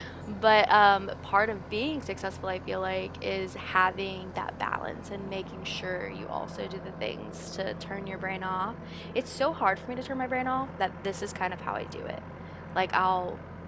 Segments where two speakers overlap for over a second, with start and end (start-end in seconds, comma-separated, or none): none